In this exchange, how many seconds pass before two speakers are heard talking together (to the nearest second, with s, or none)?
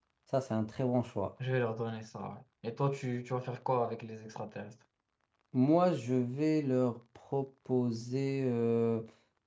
none